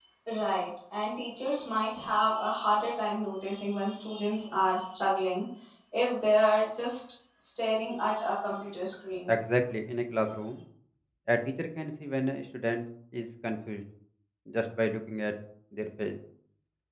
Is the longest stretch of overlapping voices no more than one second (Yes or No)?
Yes